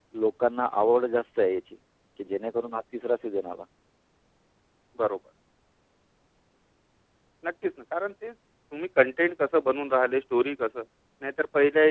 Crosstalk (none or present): none